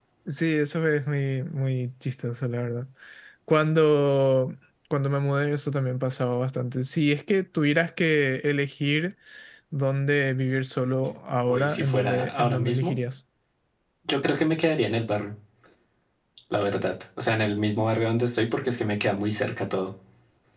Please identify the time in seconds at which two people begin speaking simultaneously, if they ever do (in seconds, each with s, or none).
11.5 s